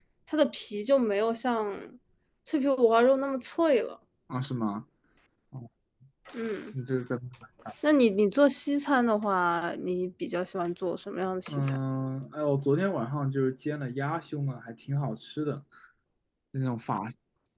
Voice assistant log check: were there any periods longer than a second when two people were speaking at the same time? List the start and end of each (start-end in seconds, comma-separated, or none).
none